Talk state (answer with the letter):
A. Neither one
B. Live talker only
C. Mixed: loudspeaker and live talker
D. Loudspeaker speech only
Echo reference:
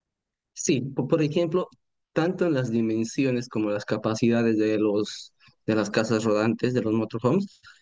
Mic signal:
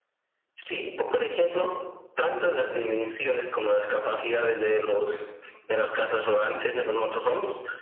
D